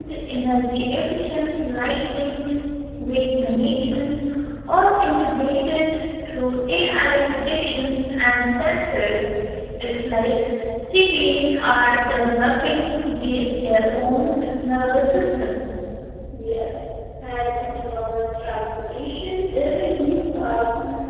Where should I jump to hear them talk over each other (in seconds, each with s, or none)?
none